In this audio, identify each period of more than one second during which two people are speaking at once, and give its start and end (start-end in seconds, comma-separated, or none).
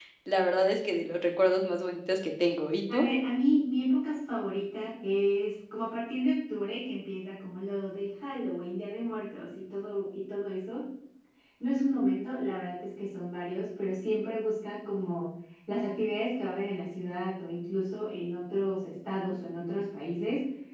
none